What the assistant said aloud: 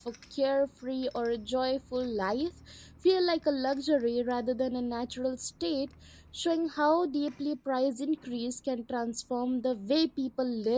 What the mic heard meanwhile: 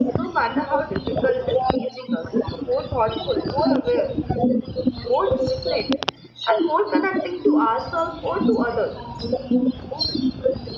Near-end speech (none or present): present